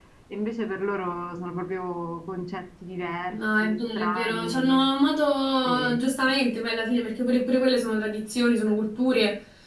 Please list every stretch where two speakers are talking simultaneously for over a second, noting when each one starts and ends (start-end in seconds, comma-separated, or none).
3.3-4.8